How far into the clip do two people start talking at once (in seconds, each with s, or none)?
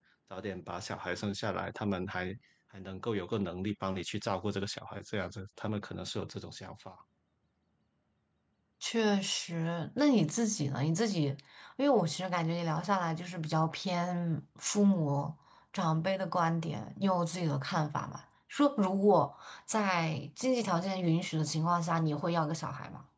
none